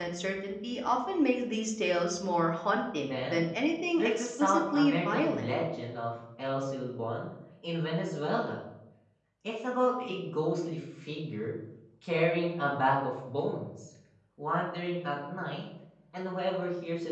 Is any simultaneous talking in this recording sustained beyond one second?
Yes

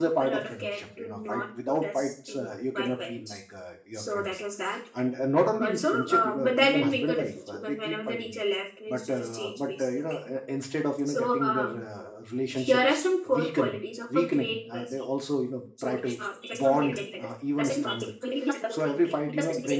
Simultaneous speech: Yes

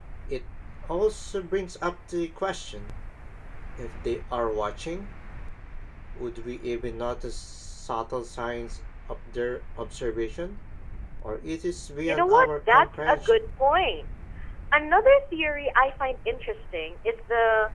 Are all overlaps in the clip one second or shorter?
No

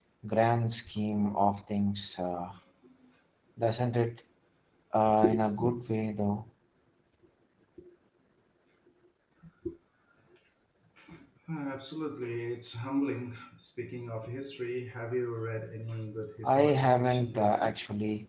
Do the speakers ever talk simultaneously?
Yes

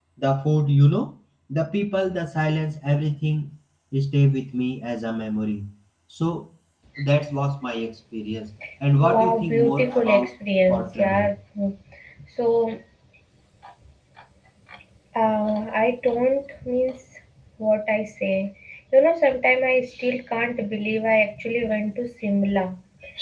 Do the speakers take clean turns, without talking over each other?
No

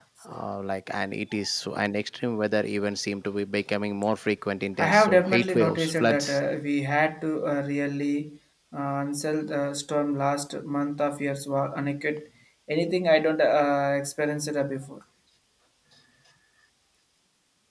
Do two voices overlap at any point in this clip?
Yes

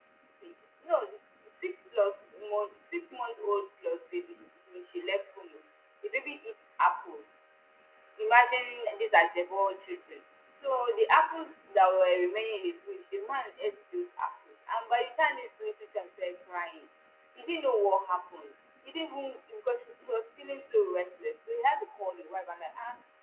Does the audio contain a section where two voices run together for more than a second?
No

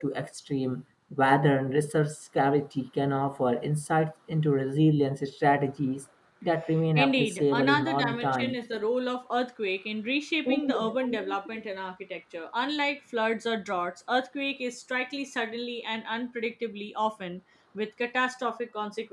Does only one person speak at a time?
No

